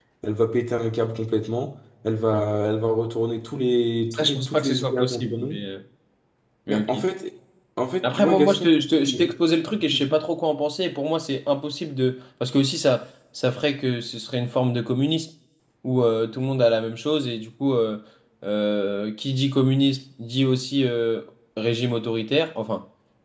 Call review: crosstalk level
present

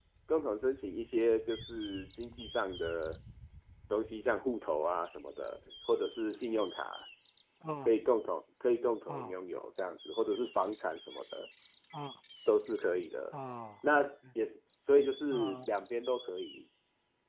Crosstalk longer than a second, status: none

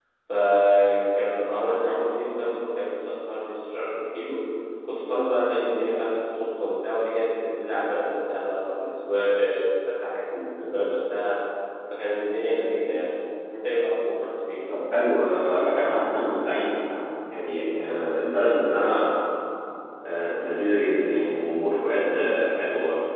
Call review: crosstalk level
none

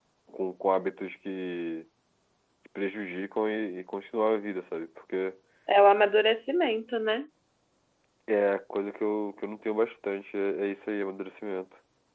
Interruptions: none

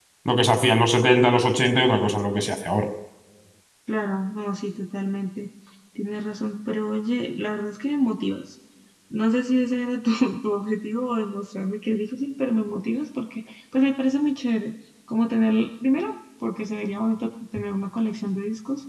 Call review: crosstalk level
none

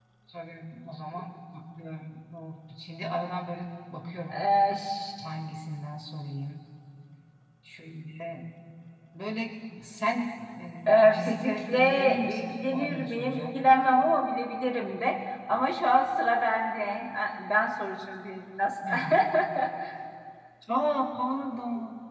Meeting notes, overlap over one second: present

